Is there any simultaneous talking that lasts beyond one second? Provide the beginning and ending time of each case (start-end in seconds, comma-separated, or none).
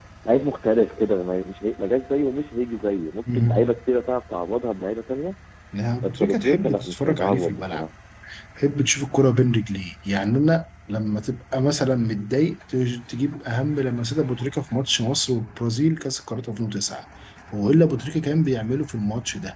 6.0-7.8